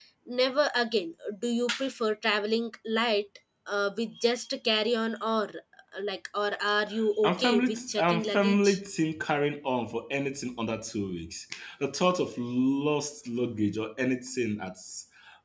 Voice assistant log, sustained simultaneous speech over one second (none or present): present